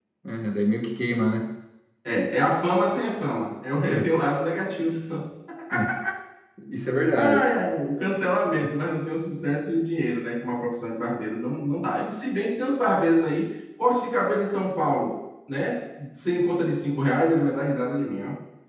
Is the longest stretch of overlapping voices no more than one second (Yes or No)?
Yes